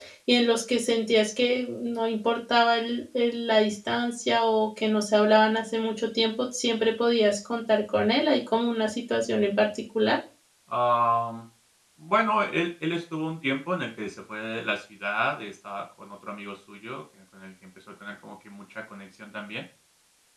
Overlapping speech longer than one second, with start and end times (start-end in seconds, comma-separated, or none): none